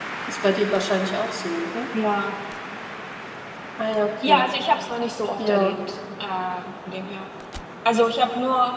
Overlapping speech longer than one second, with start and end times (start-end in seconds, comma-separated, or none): none